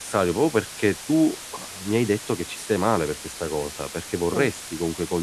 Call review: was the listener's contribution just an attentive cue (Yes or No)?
Yes